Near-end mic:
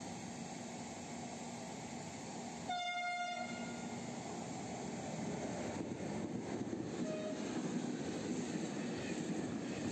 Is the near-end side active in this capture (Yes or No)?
No